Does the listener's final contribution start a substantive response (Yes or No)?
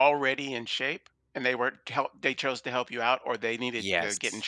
Yes